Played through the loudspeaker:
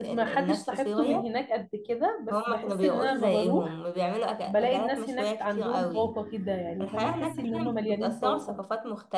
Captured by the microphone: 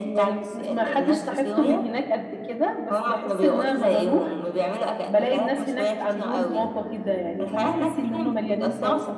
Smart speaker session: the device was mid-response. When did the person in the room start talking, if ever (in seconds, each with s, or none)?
none